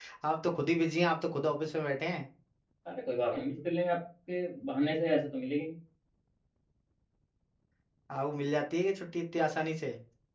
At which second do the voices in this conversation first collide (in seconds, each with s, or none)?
none